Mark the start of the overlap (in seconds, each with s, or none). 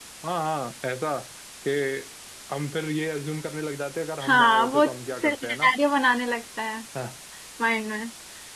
4.2 s